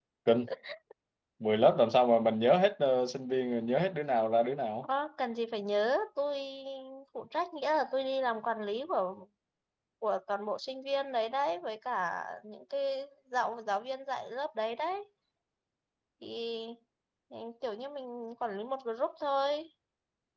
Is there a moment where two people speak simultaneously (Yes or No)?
No